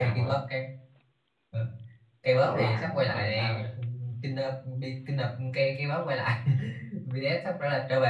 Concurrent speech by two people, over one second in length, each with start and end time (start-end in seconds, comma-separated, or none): 2.3-3.6